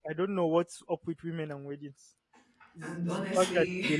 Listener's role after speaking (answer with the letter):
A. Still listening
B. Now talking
A